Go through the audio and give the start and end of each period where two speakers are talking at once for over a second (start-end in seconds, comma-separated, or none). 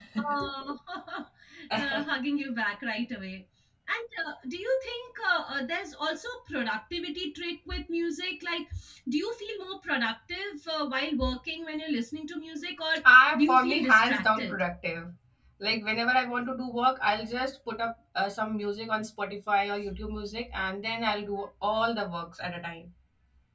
13.3-14.6